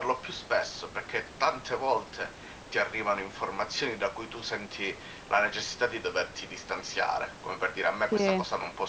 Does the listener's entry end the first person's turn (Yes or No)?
No